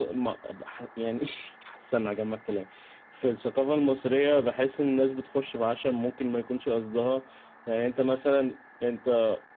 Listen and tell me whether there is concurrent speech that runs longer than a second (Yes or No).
No